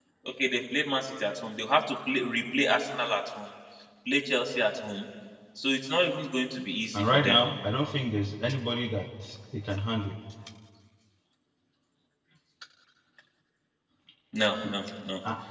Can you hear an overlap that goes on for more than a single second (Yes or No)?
No